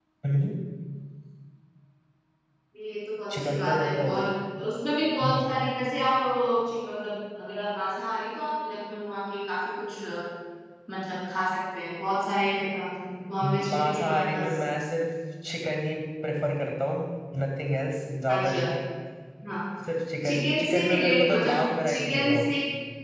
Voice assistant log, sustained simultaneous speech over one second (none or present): present